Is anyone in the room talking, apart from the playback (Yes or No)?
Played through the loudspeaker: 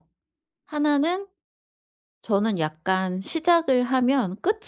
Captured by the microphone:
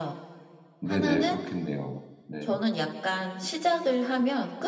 Yes